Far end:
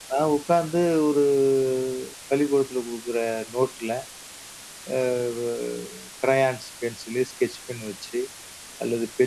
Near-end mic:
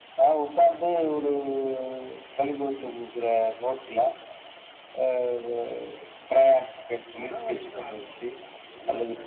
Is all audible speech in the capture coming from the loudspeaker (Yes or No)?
No